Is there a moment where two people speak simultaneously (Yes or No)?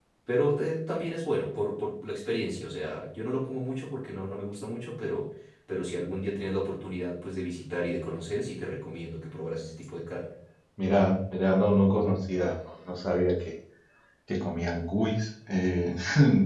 No